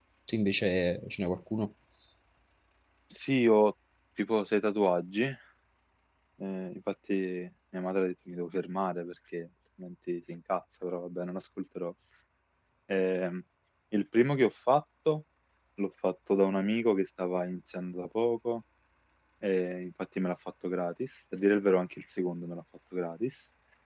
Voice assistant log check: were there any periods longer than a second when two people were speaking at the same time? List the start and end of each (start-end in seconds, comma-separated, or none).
none